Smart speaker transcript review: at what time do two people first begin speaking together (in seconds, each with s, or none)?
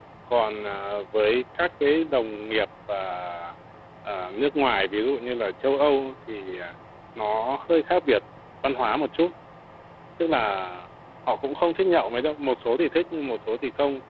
none